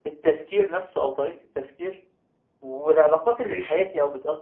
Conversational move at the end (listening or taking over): listening